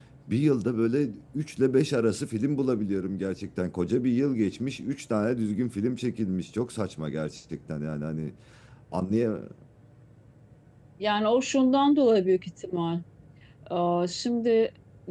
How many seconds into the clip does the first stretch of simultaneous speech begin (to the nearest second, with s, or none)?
none